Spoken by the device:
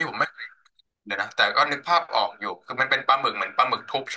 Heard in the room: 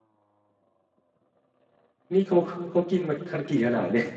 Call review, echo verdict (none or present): none